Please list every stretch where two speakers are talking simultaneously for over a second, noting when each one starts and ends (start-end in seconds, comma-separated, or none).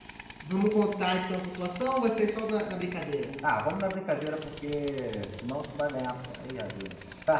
none